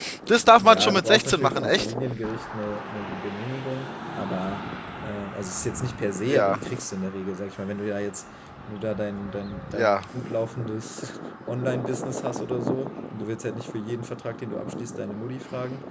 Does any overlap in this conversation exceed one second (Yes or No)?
Yes